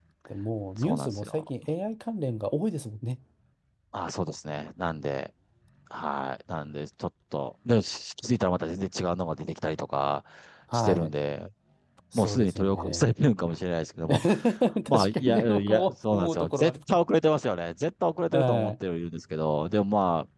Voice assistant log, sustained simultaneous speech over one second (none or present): present